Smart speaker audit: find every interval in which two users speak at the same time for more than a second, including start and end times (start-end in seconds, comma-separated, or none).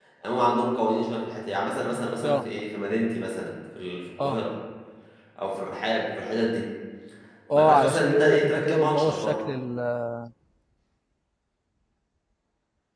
7.6-9.4